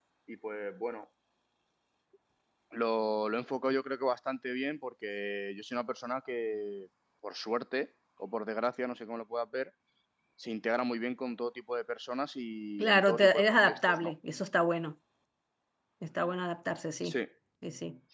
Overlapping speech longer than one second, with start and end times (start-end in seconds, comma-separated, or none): 12.8-14.1